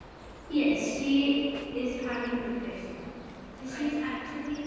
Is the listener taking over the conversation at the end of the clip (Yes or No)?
No